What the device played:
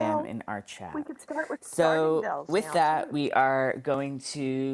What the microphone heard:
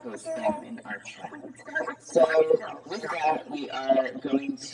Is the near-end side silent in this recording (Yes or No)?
Yes